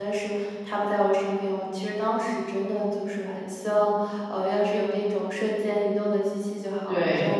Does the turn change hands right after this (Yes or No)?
No